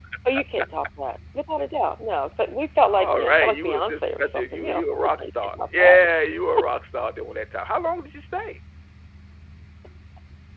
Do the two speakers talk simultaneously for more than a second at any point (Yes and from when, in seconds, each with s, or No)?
Yes, from 2.9 s